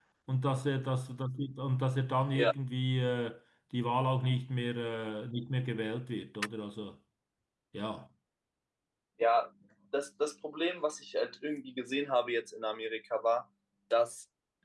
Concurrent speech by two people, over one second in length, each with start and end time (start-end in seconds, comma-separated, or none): none